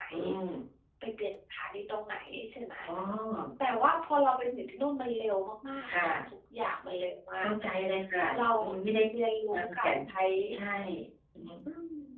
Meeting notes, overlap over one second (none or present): none